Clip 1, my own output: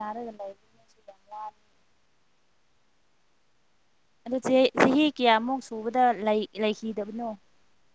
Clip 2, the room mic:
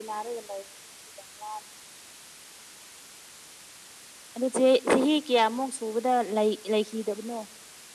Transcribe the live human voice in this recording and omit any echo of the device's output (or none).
none